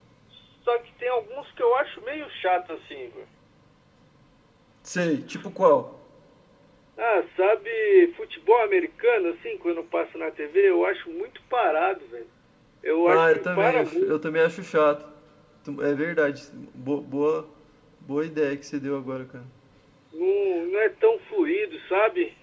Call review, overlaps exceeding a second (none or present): present